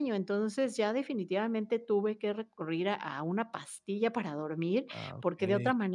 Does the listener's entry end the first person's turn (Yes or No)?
No